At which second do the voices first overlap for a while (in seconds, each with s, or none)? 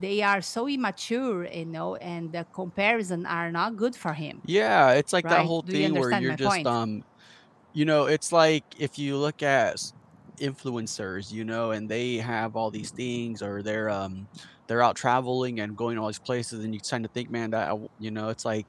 5.3 s